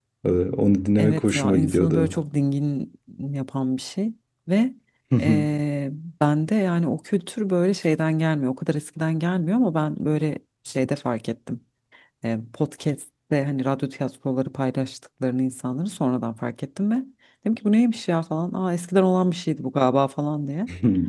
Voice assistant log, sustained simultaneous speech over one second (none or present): present